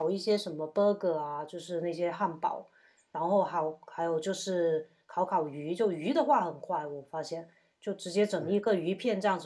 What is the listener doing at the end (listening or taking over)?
listening